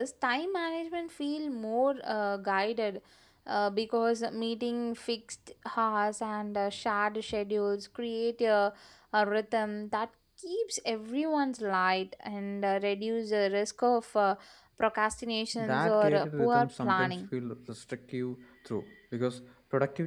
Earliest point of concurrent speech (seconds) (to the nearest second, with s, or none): 16 s